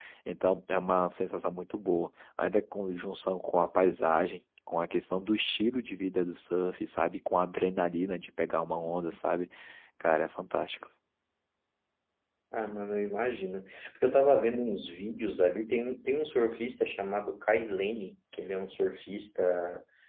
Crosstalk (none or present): none